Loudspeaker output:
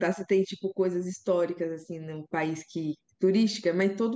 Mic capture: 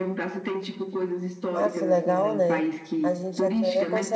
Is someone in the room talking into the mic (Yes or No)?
Yes